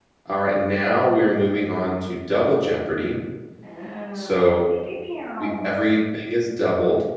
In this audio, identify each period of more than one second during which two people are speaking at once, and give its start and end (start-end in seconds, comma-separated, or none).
none